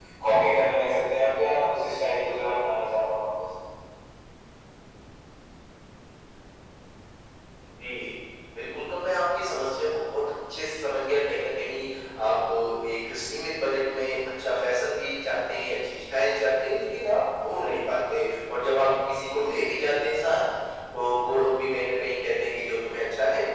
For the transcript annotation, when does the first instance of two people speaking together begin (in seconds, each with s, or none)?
none